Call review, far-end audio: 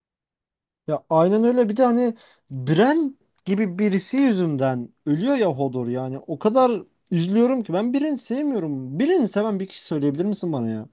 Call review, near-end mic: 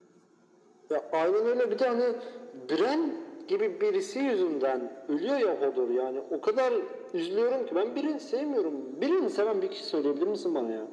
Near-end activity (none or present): none